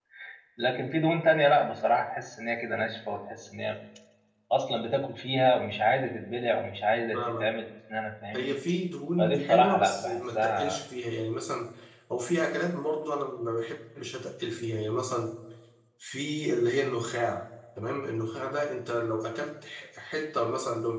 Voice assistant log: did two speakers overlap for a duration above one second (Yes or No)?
Yes